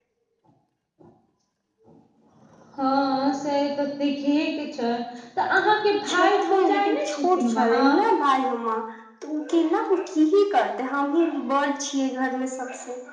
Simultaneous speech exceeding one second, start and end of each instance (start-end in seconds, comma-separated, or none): 6.1-7.9